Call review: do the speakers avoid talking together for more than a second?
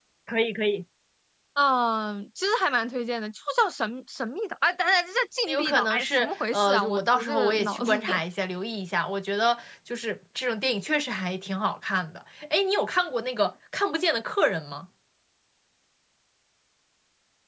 No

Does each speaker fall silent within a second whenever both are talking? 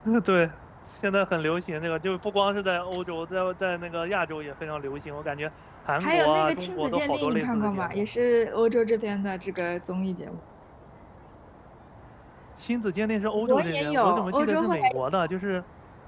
No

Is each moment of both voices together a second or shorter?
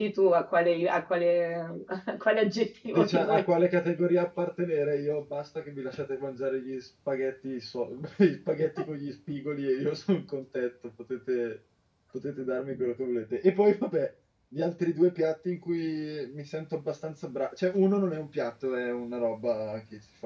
Yes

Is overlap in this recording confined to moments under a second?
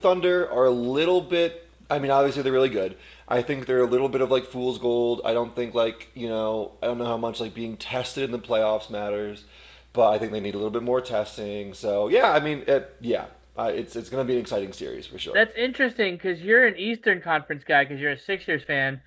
Yes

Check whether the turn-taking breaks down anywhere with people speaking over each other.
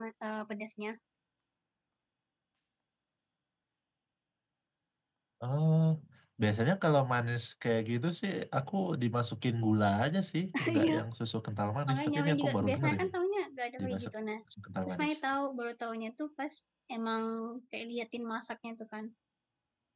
Yes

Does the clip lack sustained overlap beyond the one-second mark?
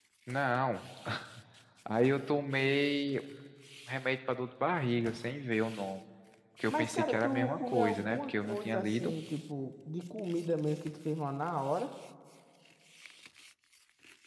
No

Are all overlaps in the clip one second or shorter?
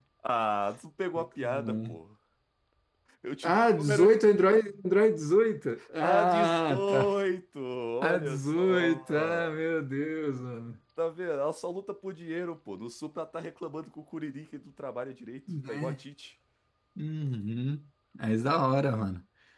No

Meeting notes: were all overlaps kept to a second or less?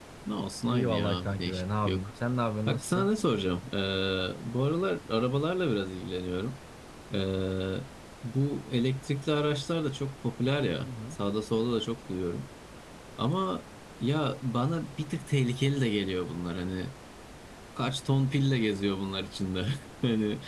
No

